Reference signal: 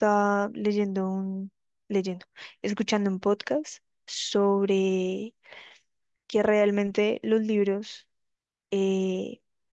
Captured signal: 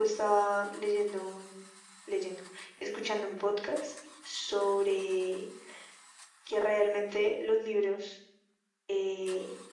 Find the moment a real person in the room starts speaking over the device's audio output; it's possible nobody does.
none

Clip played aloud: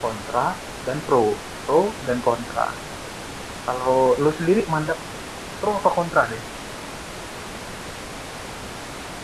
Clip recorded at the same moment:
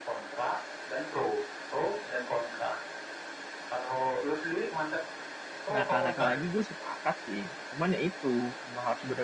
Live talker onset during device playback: 5.7 s

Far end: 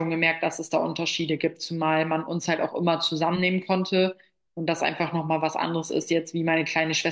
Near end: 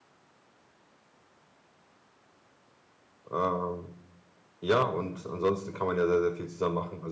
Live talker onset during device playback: 3.3 s

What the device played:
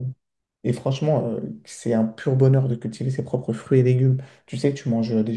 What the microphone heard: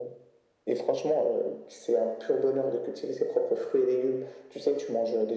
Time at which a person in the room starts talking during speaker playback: none

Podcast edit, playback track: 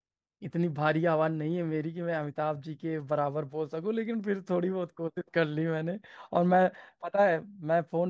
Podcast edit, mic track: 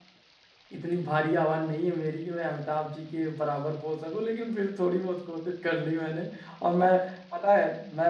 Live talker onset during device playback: none

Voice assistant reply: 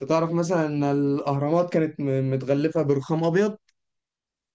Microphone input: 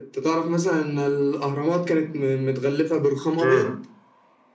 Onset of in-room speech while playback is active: 3.4 s

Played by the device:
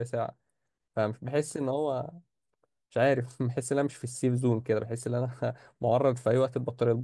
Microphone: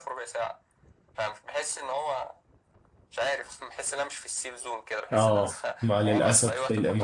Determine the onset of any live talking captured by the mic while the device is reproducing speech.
5.1 s

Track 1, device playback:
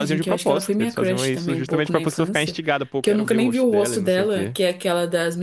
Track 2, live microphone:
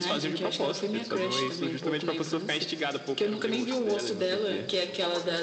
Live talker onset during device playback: none

